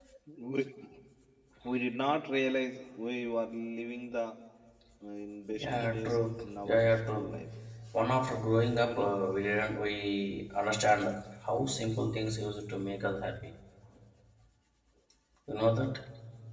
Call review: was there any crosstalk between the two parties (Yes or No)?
Yes